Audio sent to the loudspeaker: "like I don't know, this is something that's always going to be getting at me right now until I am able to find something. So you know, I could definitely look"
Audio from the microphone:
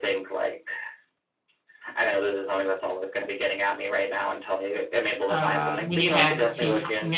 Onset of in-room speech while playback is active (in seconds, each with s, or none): 5.3 s